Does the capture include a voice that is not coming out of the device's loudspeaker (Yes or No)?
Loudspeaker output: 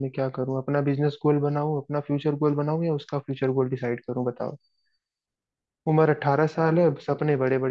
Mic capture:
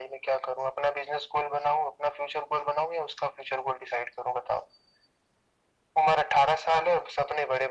No